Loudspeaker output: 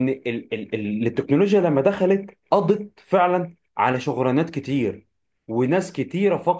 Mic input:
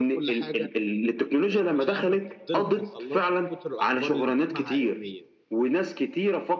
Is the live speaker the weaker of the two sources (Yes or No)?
Yes